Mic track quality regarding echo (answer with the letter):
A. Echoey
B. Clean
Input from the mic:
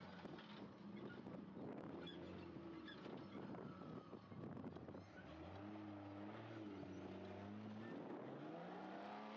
B